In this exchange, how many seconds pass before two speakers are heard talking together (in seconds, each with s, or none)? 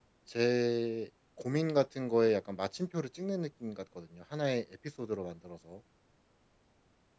none